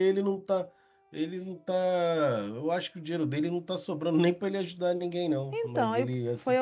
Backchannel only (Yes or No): No